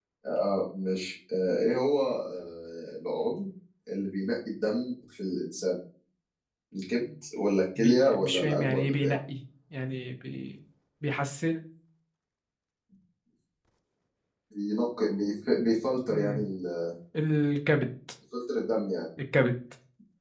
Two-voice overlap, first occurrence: 7.8 s

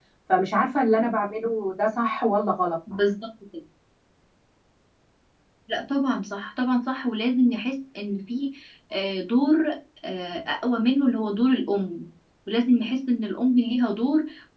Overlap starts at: none

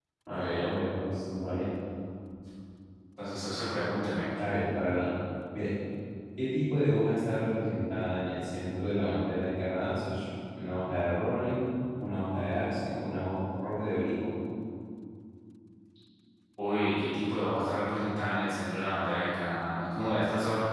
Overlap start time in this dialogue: none

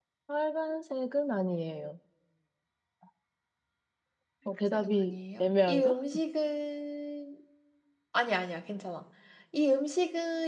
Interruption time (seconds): 4.7 s

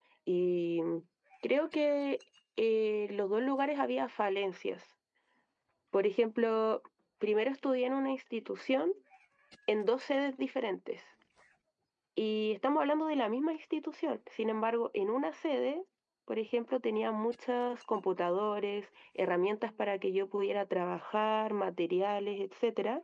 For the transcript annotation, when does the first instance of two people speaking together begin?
none

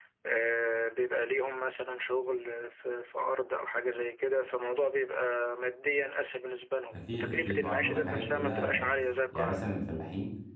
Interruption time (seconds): 6.9 s

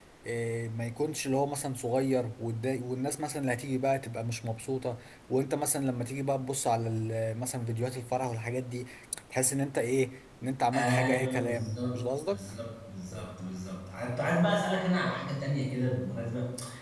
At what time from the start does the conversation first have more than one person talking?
10.7 s

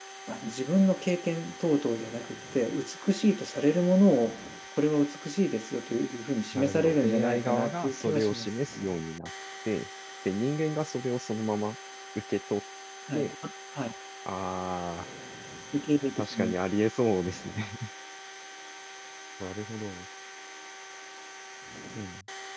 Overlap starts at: 6.5 s

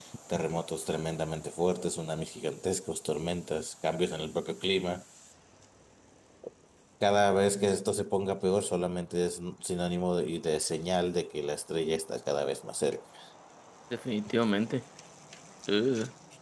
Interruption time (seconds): none

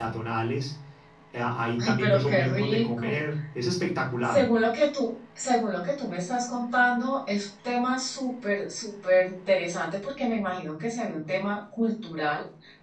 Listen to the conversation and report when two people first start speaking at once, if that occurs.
1.8 s

